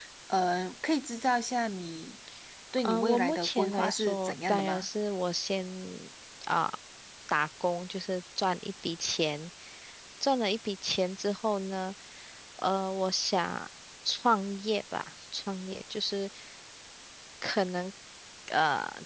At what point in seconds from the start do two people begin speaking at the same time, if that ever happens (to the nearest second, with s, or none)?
3 s